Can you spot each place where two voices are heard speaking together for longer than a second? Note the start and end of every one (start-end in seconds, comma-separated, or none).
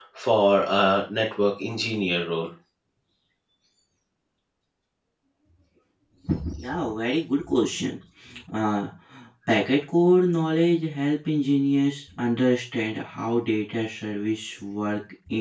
none